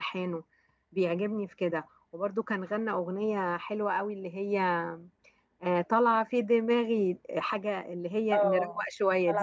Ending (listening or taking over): taking over